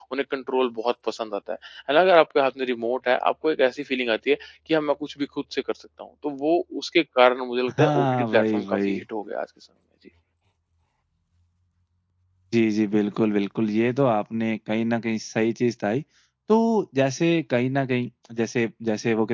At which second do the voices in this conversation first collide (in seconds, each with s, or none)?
7.7 s